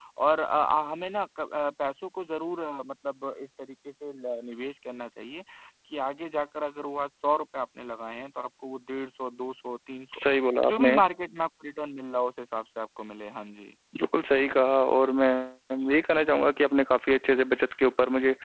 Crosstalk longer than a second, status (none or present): none